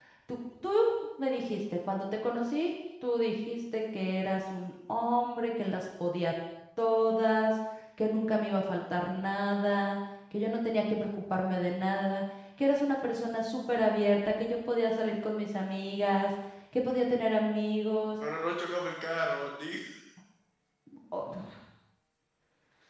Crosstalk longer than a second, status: none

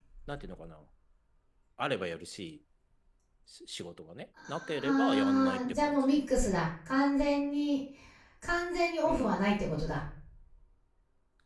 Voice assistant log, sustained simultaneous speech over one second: present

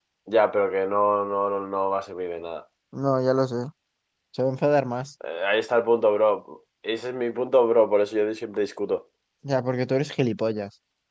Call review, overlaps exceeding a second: none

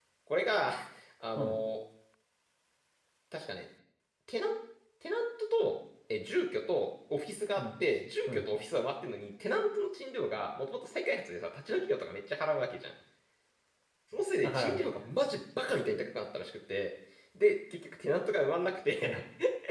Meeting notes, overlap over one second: none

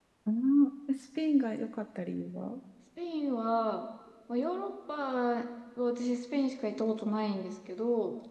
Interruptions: none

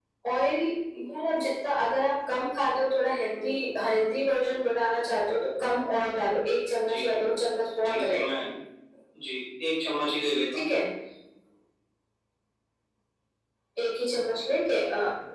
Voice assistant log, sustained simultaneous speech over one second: none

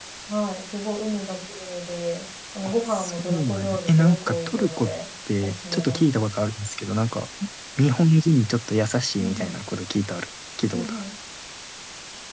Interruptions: present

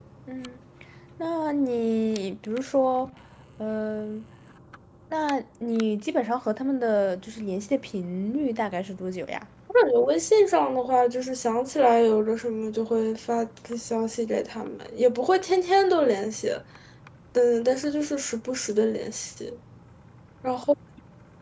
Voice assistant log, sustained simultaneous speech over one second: none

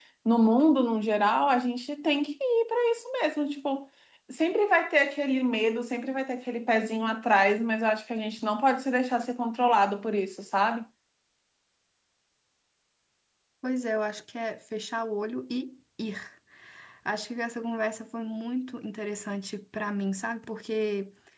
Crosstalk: none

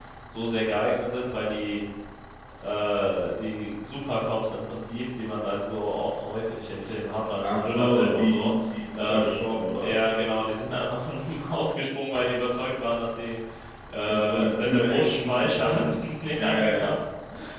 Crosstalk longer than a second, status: present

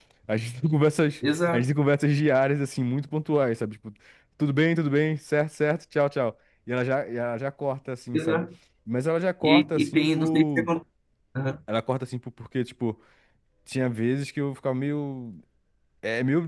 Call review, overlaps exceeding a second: present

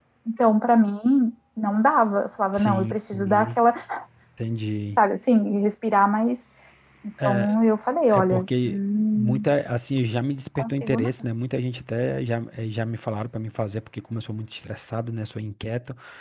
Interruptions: present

